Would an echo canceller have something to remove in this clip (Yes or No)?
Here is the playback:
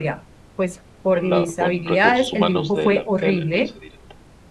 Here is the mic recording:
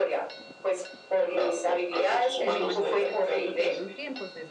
Yes